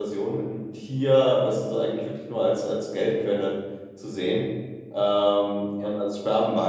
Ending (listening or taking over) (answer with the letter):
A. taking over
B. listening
B